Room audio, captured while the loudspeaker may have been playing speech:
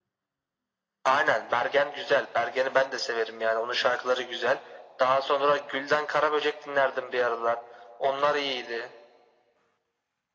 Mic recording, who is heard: echo only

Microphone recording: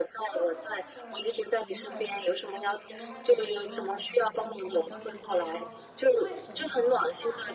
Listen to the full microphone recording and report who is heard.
both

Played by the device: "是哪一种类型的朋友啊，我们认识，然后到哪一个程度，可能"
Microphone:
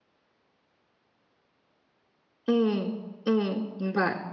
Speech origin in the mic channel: user only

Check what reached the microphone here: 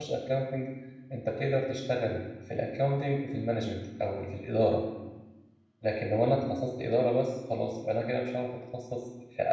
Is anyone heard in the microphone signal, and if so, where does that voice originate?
user only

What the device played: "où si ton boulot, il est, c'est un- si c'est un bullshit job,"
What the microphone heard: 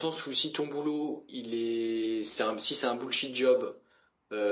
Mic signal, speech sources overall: echo only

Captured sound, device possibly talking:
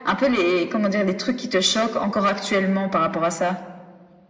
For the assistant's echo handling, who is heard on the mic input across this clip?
echo only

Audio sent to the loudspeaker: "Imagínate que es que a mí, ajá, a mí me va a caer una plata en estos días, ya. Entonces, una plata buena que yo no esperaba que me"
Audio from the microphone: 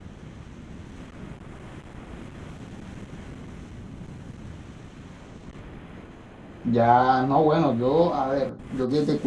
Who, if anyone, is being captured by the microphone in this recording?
user only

